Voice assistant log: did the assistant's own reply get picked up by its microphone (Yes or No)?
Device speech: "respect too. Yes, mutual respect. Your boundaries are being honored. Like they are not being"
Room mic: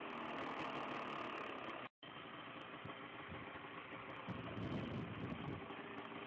No